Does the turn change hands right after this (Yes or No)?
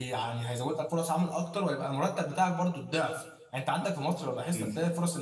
No